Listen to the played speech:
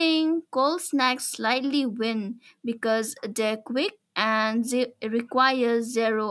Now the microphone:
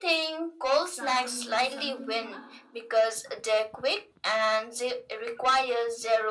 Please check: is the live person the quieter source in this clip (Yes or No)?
Yes